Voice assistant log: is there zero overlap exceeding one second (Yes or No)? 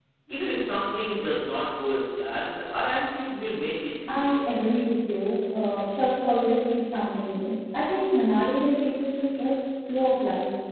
Yes